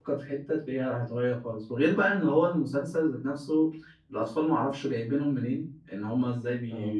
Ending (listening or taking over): listening